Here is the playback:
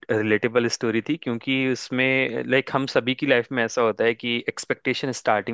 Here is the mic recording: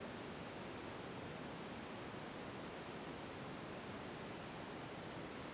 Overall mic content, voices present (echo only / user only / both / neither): neither